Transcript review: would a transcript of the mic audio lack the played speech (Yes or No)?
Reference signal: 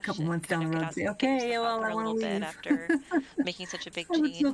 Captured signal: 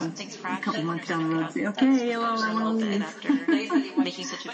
No